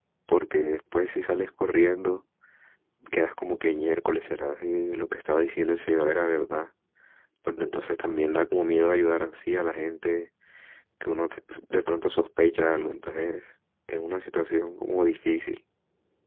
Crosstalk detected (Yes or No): No